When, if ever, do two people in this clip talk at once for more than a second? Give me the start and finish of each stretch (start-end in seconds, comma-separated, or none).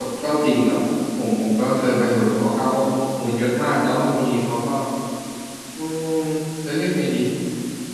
none